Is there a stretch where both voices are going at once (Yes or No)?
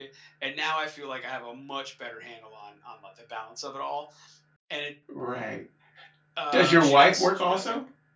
Yes